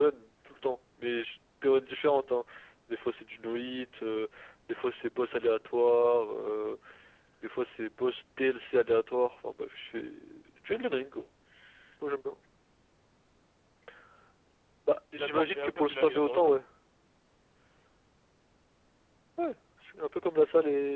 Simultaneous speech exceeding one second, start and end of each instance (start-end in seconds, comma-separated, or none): 15.1-16.5